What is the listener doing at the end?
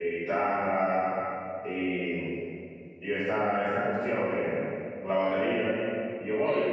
listening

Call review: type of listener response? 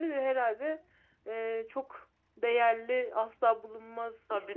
listening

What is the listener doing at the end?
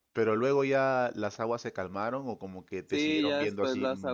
taking over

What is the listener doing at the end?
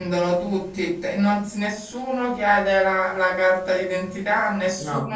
listening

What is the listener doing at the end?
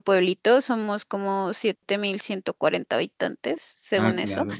listening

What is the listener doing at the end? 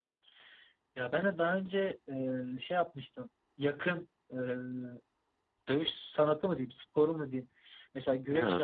listening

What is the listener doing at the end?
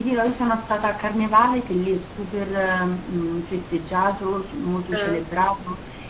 listening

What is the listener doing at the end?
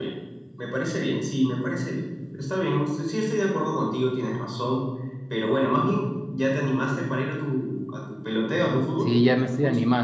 taking over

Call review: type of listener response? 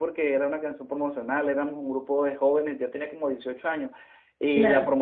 listening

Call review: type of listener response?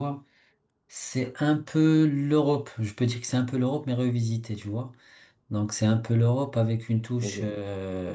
listening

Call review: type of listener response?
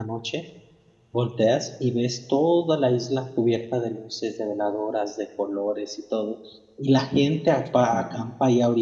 listening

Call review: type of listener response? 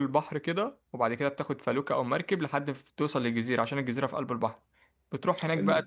listening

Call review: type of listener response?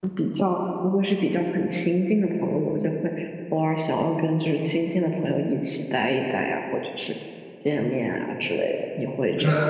taking over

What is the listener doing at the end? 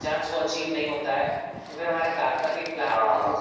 listening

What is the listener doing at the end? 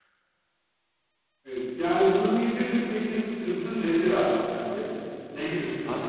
taking over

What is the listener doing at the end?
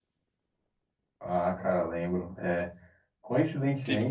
listening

